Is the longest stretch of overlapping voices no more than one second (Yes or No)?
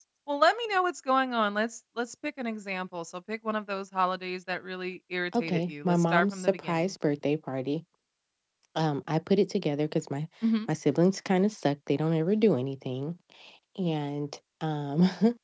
No